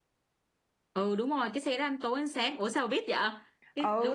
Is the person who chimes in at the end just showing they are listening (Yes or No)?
No